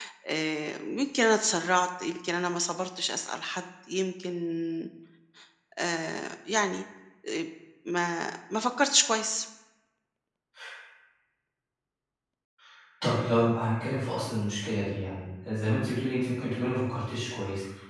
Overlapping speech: No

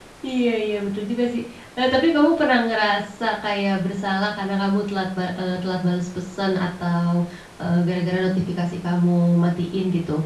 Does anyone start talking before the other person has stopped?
No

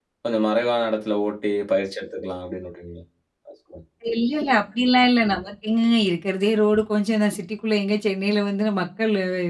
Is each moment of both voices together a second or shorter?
Yes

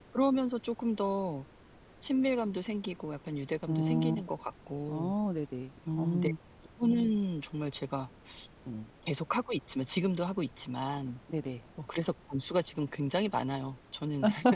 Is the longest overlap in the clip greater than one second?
No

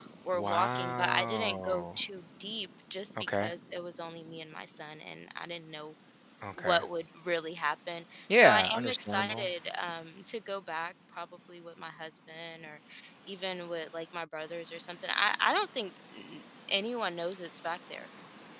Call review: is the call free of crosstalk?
No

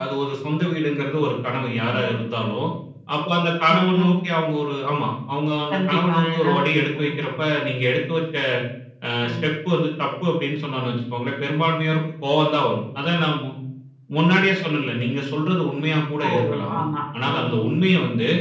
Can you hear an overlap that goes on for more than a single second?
Yes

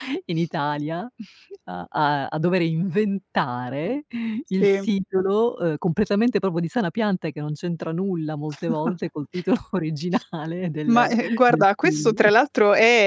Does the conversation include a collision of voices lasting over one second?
Yes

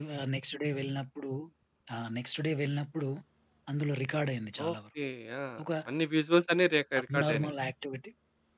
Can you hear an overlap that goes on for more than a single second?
No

